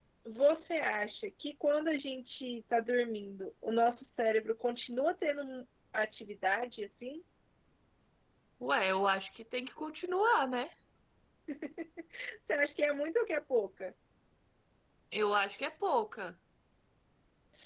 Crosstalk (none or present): none